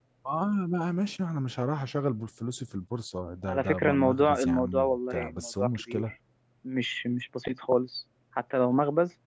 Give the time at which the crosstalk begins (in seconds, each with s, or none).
3.5 s